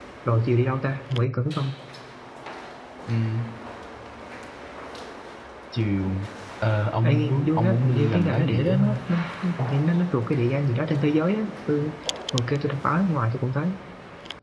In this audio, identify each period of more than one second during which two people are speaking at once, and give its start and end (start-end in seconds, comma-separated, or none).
7.0-9.0